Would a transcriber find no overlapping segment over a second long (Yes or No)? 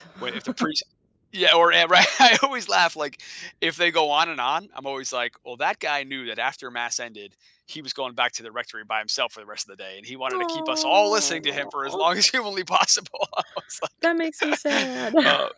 No